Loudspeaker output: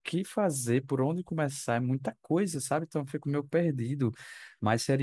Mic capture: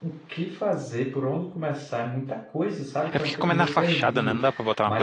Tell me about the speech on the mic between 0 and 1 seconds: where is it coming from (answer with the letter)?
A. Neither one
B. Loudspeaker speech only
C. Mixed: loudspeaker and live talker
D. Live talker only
B